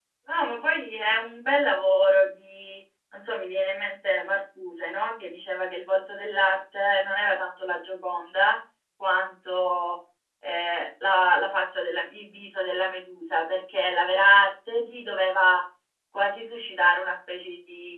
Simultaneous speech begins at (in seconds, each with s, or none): none